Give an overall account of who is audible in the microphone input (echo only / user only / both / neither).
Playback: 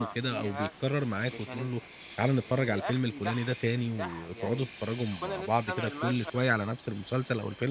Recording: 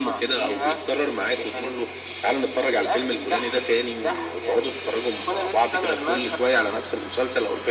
echo only